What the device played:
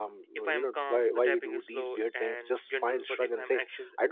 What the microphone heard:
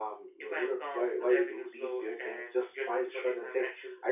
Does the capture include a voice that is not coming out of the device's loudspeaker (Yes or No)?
No